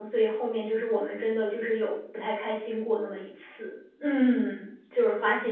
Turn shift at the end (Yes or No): Yes